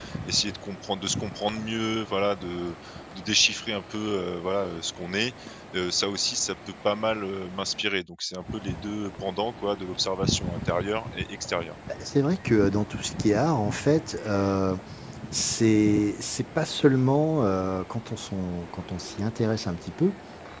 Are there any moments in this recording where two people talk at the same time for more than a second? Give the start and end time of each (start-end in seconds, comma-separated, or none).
none